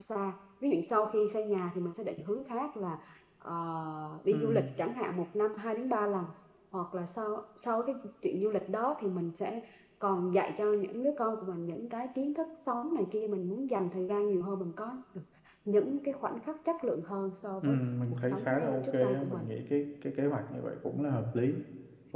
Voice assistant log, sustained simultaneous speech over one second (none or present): present